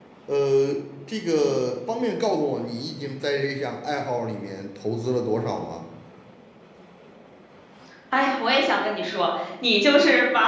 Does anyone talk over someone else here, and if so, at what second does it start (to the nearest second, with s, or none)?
none